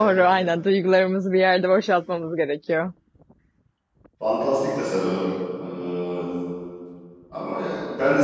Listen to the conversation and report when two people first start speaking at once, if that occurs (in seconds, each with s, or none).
none